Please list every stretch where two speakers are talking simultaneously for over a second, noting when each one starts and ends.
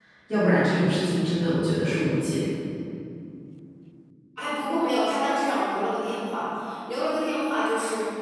none

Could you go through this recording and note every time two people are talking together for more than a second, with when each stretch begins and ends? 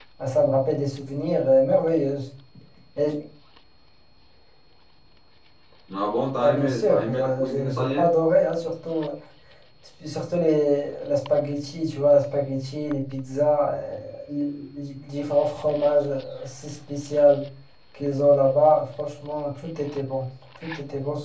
6.4-8.1

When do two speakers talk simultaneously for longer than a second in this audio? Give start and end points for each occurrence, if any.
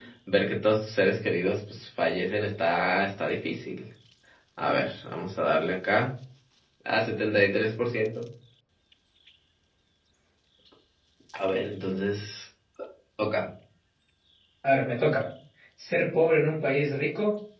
none

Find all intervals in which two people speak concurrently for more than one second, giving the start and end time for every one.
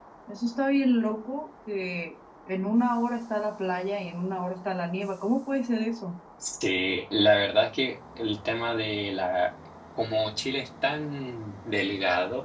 none

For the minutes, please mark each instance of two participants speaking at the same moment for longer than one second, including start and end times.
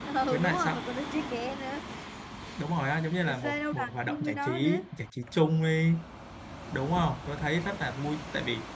3.2-4.8

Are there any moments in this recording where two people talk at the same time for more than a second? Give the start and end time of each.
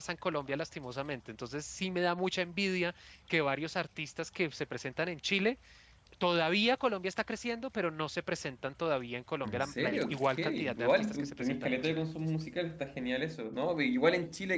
9.4-12.0

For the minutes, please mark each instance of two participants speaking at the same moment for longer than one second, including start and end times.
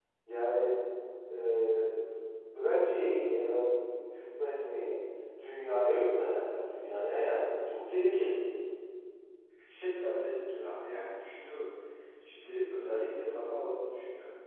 none

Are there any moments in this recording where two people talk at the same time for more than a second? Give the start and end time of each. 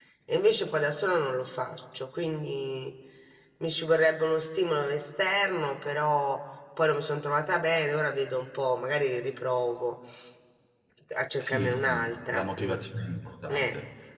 11.4-12.8

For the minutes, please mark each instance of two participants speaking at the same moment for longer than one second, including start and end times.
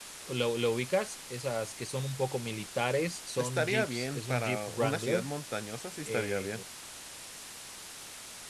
3.4-5.3

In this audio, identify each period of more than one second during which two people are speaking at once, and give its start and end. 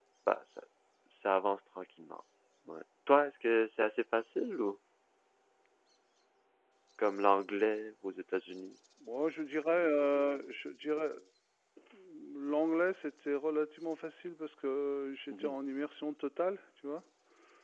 none

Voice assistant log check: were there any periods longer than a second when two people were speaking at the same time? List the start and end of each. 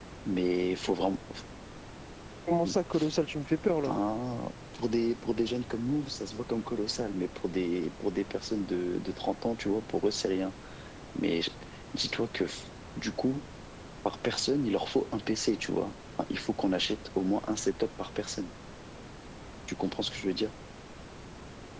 none

